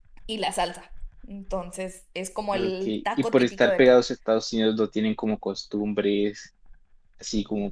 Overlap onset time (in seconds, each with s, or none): 2.5 s